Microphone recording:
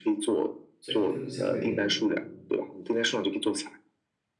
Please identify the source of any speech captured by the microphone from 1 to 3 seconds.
both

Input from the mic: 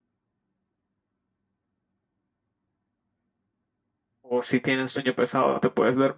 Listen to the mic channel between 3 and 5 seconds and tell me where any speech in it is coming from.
user only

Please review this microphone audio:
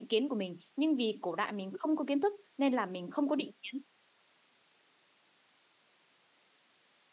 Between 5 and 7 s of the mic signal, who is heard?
neither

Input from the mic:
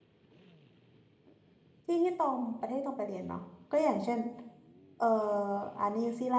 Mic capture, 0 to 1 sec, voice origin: neither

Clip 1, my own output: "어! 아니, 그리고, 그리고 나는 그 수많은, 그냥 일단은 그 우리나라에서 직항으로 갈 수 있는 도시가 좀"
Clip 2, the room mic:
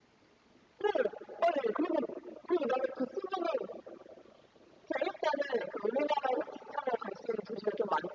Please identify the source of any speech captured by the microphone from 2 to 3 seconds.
echo only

